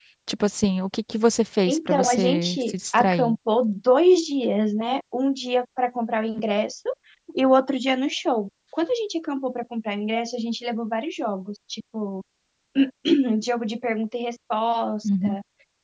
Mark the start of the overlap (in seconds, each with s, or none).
1.7 s